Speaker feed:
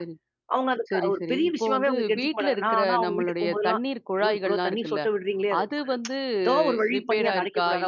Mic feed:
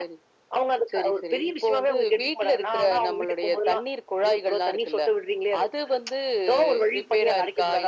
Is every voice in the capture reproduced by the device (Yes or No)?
Yes